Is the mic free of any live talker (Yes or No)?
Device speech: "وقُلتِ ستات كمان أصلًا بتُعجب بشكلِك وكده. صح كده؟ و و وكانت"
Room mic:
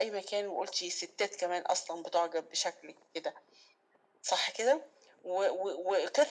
Yes